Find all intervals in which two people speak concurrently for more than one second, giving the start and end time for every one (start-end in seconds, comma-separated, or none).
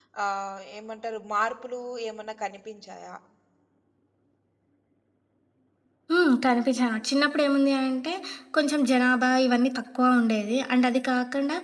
none